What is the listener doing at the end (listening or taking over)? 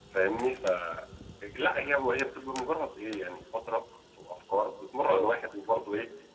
listening